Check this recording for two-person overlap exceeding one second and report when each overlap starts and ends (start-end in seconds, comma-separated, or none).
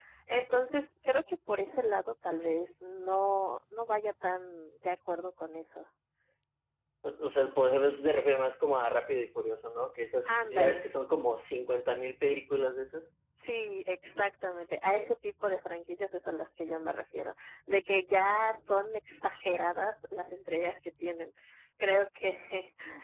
none